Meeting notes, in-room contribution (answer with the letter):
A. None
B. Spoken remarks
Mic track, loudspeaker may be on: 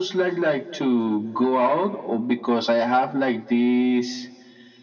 A